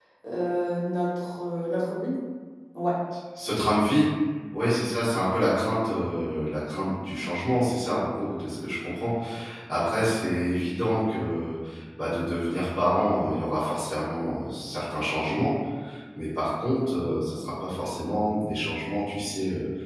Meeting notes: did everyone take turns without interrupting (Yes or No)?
Yes